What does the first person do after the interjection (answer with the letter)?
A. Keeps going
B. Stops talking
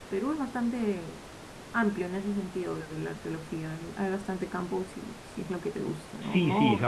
B